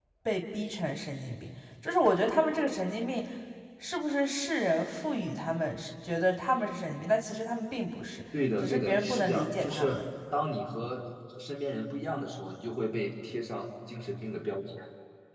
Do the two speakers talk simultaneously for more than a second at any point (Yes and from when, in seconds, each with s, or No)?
Yes, from 8.6 s